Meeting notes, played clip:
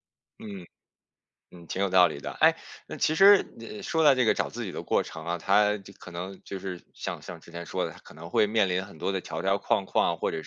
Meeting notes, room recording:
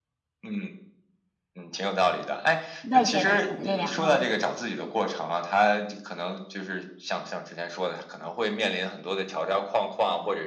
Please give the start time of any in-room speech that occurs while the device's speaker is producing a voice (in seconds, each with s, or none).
2.9 s